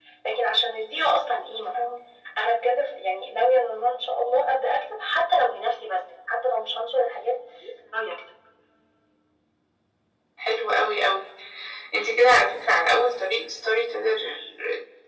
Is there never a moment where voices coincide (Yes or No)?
Yes